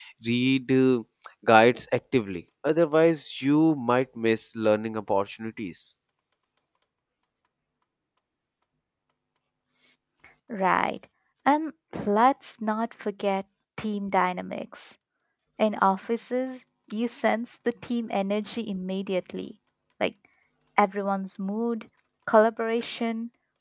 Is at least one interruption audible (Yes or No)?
No